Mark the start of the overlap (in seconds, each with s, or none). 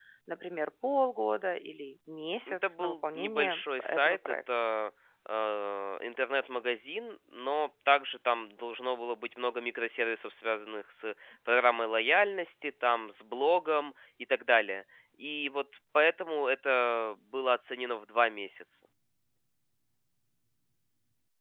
2.5 s